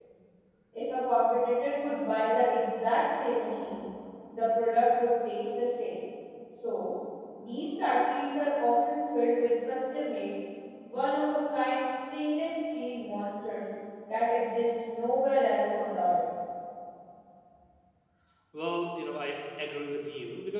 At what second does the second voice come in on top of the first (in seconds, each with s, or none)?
none